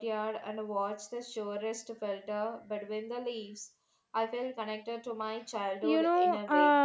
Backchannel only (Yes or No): No